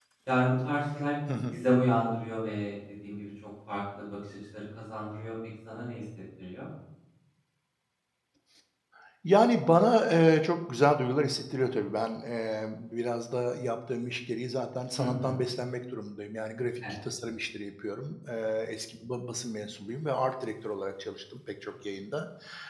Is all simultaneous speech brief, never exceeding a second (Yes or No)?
Yes